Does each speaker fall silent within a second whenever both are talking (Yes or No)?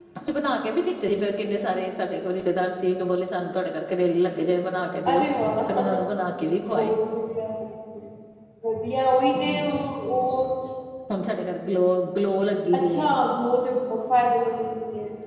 Yes